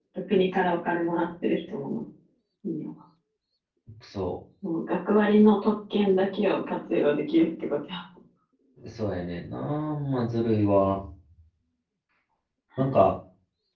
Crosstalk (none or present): none